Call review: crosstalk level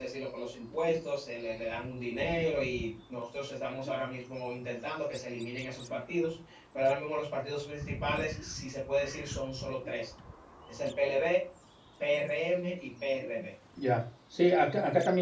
none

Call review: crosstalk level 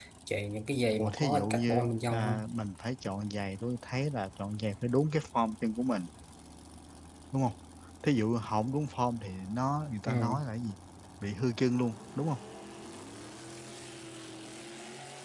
present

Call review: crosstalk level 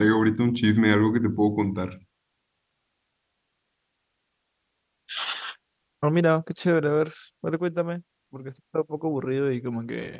none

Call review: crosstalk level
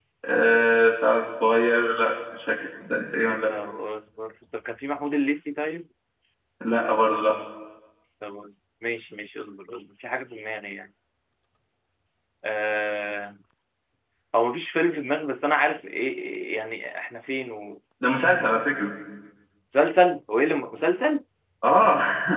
none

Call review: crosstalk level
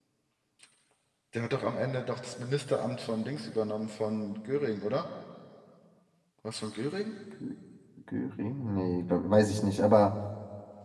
none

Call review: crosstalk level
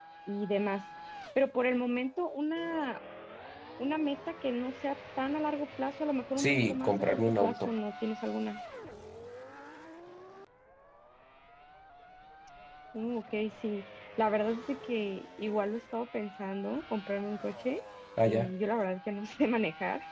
present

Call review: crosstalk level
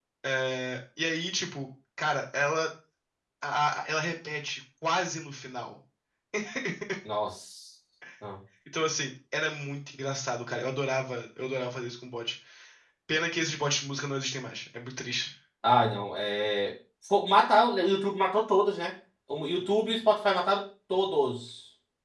none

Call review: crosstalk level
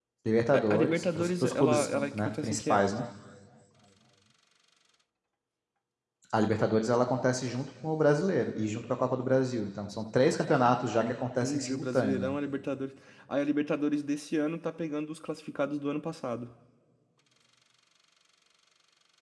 present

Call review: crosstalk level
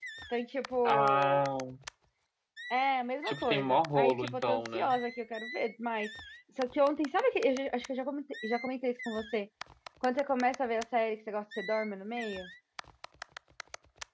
present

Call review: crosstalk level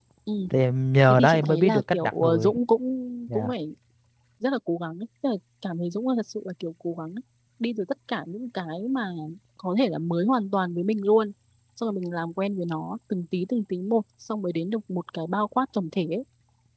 present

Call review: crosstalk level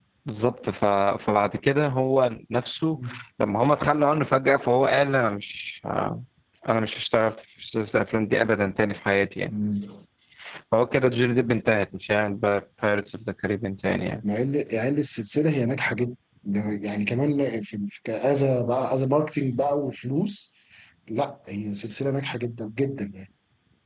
none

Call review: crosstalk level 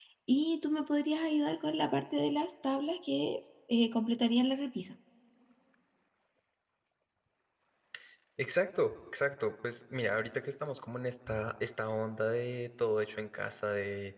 none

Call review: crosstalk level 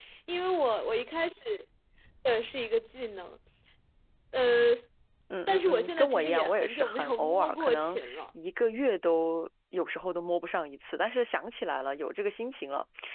present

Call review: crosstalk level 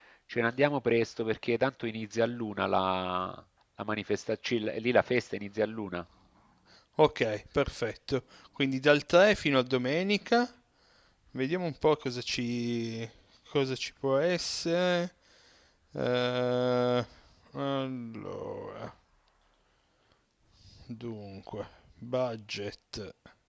none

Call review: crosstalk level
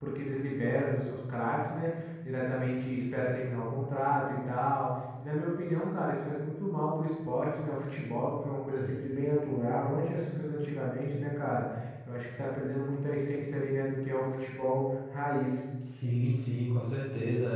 none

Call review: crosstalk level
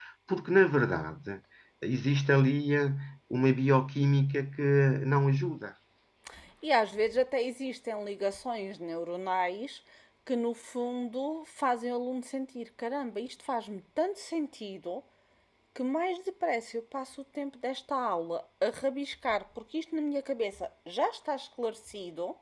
none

